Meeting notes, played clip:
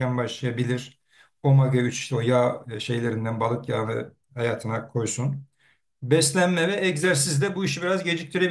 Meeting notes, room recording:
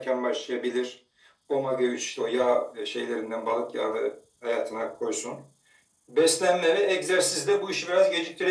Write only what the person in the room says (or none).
none